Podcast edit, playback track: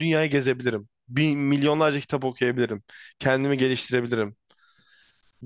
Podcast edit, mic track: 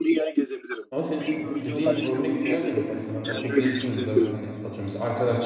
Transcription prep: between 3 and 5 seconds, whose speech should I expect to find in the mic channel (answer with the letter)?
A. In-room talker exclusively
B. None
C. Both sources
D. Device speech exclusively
C